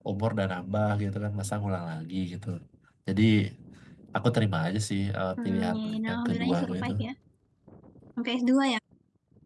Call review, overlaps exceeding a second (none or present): present